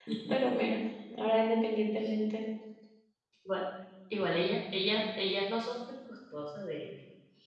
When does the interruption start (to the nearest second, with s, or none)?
none